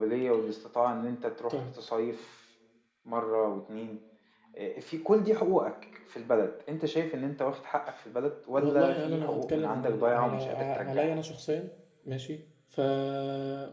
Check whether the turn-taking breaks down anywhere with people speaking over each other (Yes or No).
Yes